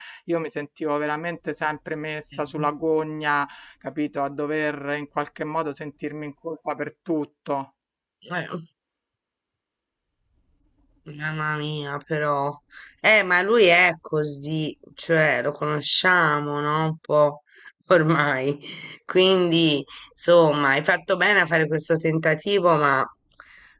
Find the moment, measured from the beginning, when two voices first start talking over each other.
none

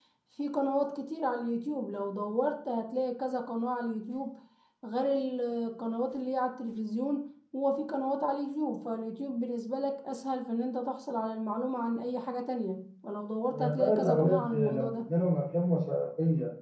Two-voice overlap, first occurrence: 13.5 s

